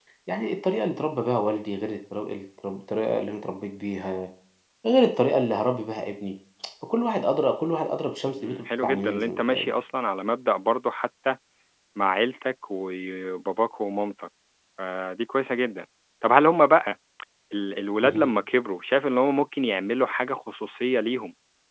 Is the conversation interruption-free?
No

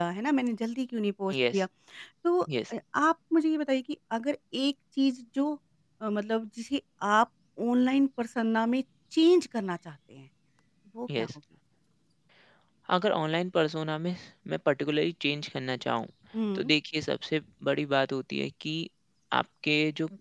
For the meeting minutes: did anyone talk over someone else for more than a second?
No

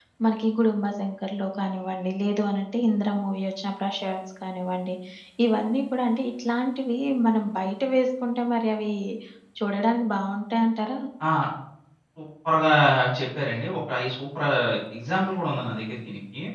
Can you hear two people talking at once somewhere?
No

